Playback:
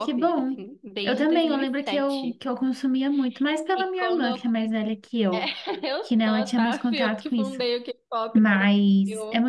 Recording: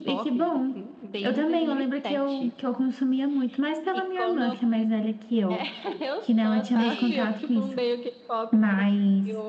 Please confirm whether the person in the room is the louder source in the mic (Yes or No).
No